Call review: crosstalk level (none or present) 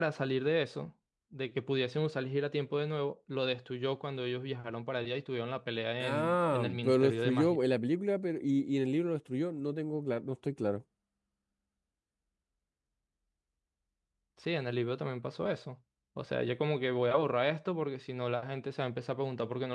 present